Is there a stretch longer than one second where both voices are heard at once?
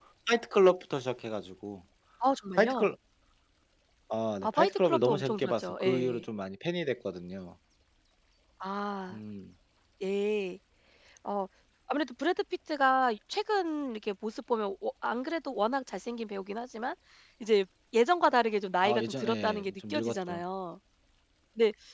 Yes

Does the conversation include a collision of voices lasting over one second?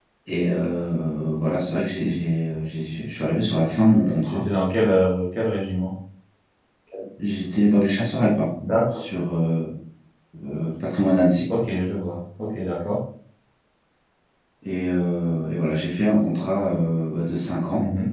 No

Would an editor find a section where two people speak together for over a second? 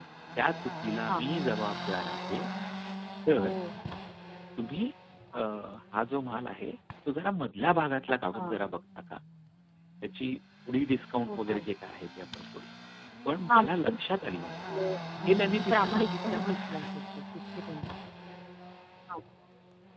Yes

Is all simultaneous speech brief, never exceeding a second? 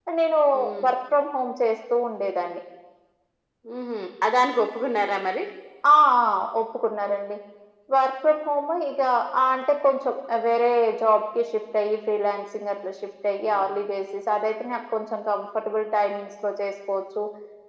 Yes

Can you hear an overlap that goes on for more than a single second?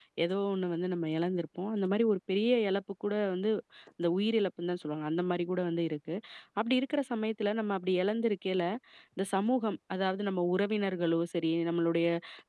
No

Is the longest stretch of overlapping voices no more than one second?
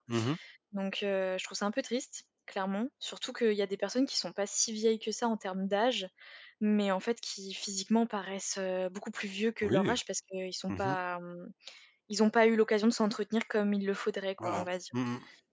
Yes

